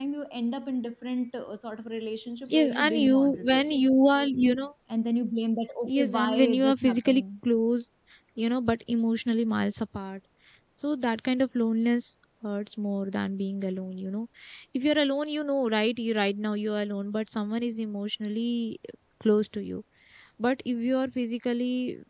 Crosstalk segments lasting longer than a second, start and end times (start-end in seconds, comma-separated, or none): 2.5-3.8, 5.9-7.2